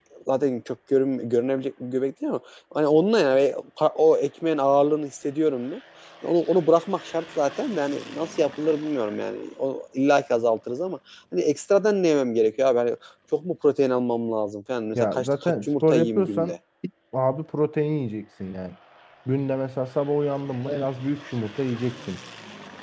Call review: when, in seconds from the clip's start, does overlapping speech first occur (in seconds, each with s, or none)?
14.9 s